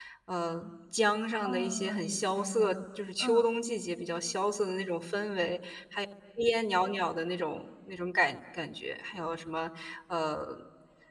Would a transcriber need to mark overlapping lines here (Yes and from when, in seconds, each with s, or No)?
Yes, from 1.4 s